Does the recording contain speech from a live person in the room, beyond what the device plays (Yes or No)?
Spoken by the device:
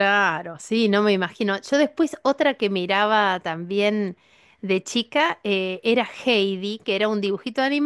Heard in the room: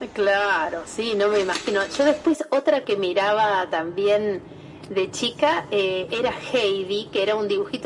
No